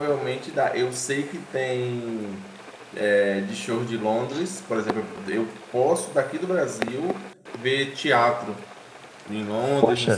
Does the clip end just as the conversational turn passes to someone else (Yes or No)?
No